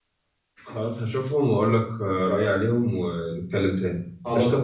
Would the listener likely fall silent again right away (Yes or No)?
No